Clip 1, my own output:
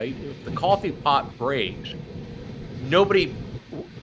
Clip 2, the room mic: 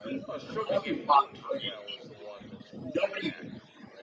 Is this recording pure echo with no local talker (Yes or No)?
No